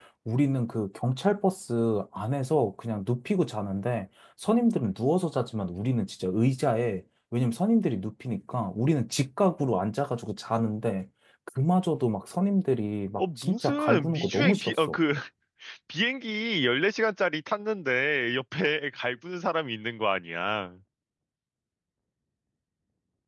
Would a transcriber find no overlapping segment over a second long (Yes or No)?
No